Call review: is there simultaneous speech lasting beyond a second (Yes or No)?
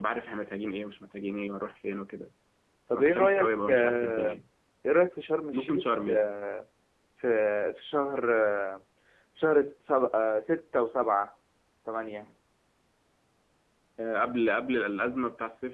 Yes